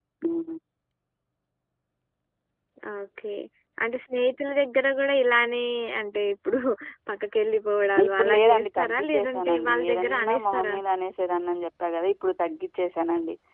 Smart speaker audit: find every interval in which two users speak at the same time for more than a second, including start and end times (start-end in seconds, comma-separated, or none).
8.1-10.8